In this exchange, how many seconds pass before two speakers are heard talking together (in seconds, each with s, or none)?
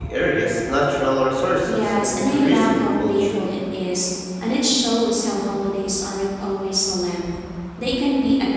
1.7 s